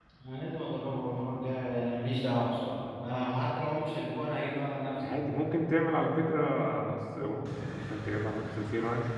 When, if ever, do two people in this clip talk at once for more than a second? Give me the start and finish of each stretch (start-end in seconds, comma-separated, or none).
none